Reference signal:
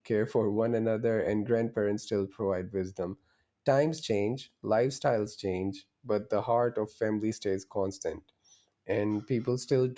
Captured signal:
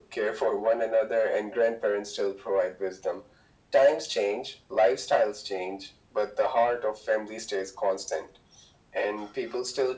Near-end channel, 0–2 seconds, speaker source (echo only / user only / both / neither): echo only